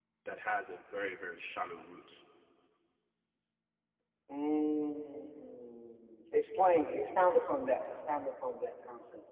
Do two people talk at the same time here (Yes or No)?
No